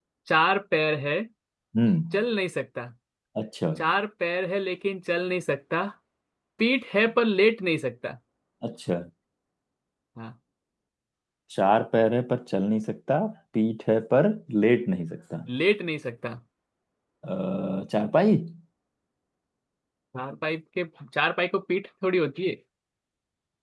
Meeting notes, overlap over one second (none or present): none